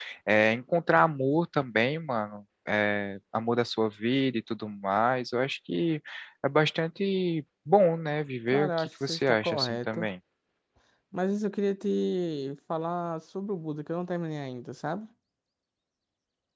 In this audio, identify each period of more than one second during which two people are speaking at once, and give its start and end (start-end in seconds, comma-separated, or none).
8.5-10.1